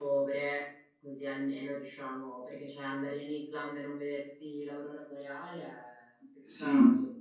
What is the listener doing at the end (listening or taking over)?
taking over